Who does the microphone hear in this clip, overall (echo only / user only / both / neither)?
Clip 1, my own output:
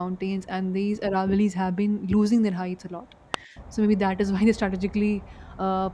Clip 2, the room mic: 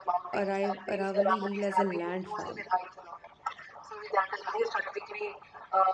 both